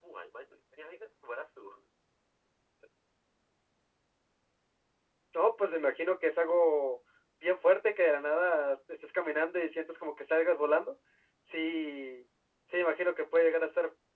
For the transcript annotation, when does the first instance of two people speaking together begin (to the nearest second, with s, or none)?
none